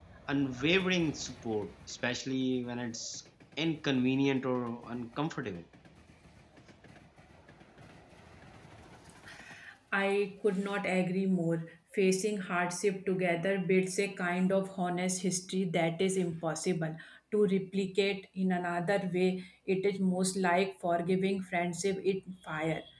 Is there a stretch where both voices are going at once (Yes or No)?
No